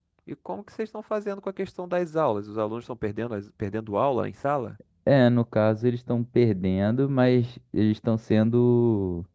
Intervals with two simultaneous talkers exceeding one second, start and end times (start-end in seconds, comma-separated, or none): none